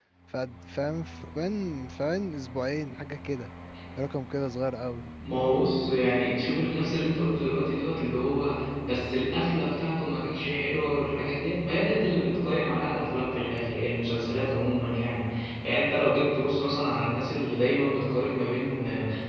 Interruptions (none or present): none